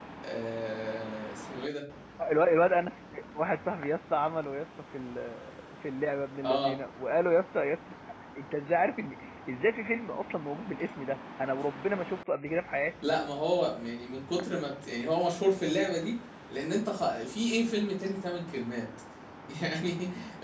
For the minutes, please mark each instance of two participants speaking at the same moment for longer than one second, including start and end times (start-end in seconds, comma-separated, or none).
none